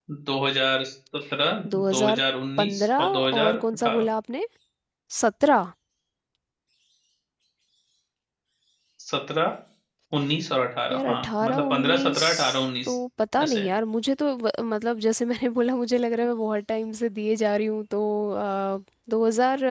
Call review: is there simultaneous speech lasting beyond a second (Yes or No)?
Yes